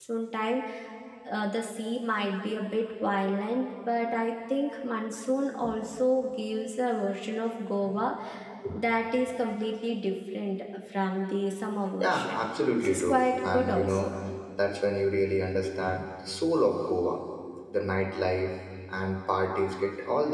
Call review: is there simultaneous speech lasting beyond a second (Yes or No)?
Yes